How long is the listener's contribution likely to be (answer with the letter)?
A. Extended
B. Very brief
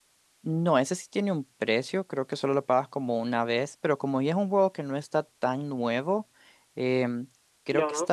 B